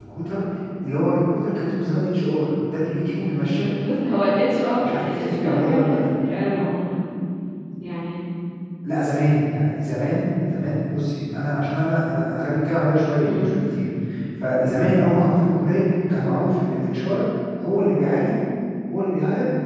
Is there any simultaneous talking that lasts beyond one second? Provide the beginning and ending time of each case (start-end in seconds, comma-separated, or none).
4.9-6.4